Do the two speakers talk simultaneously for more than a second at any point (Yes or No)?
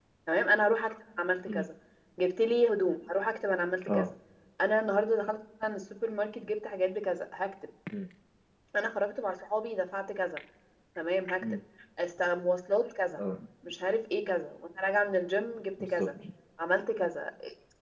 No